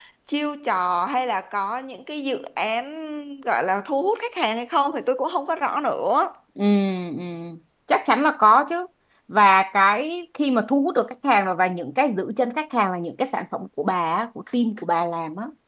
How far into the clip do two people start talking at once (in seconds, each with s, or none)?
none